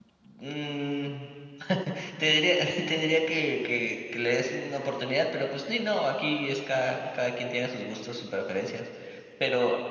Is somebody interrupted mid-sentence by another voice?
No

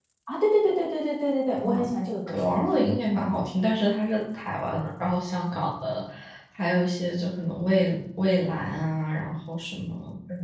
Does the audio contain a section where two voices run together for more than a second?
No

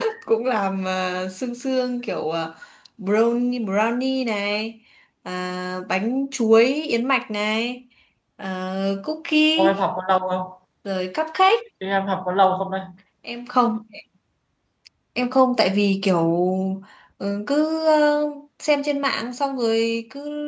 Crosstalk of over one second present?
No

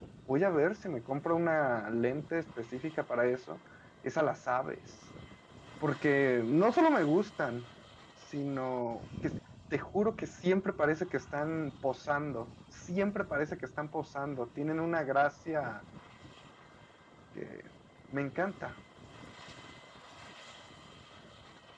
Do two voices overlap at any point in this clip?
No

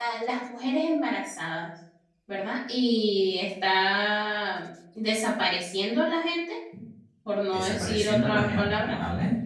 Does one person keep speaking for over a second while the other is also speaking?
Yes, from 7.5 s

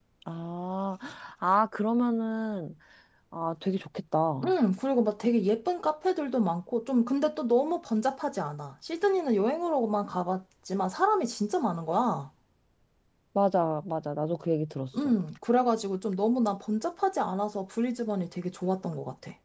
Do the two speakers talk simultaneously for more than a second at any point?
No

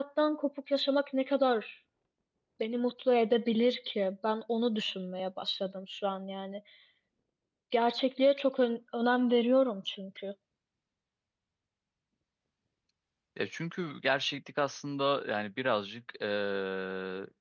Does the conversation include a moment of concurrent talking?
No

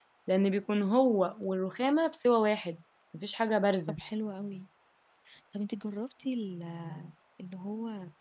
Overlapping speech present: No

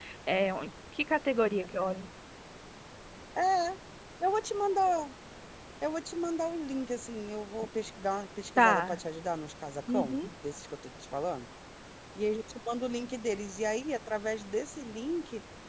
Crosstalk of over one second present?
No

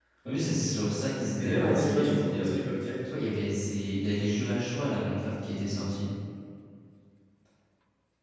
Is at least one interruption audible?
Yes, from 1.4 s

